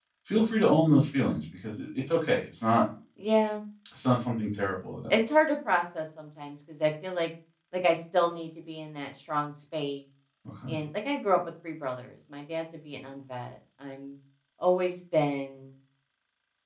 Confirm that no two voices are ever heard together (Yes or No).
Yes